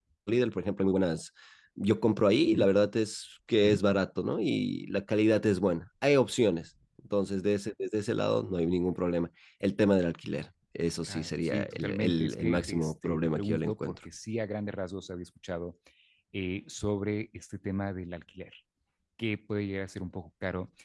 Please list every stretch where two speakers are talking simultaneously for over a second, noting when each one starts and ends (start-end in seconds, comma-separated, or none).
11.1-13.9